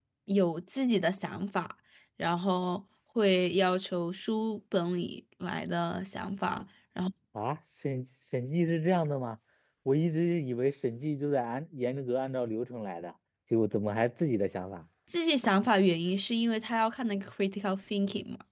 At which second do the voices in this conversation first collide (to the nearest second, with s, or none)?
none